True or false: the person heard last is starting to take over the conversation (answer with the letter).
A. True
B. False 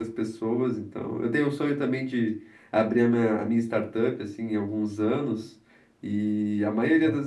B